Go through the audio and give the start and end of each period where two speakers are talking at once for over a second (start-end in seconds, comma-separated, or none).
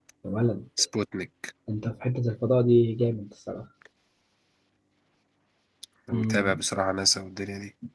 none